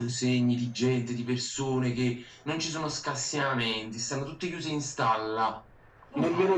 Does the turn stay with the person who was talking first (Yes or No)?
No